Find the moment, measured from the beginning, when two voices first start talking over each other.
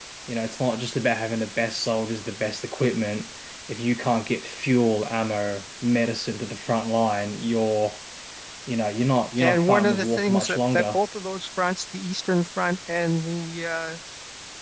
9.4 s

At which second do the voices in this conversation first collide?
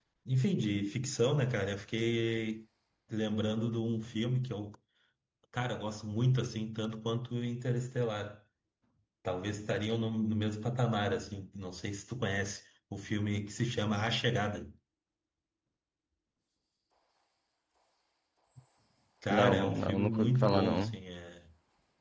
19.3 s

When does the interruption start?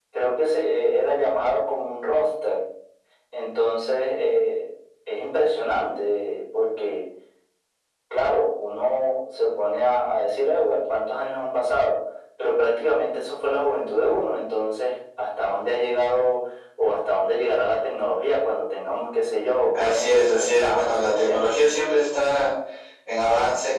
19.7 s

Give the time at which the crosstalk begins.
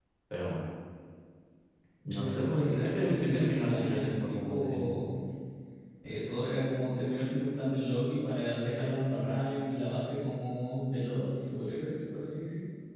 2.1 s

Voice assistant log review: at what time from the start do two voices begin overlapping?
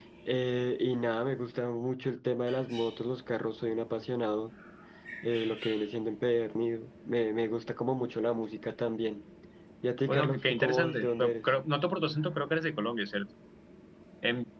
10.1 s

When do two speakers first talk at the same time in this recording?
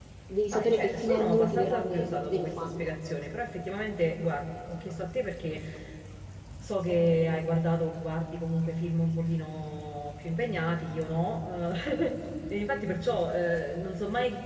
0.5 s

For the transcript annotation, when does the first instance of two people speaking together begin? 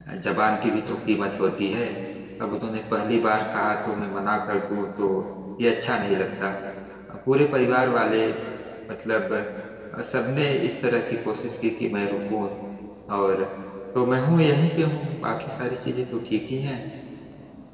none

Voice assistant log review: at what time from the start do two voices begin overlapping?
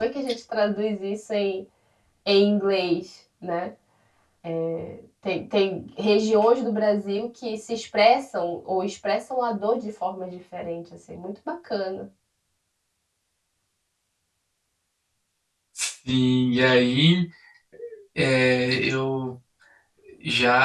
none

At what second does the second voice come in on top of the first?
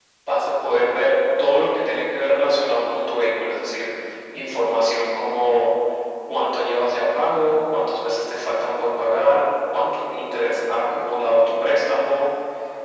none

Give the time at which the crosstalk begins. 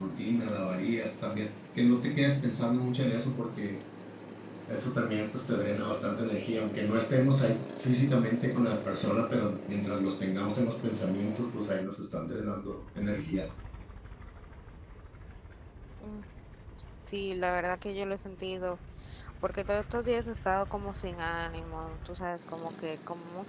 none

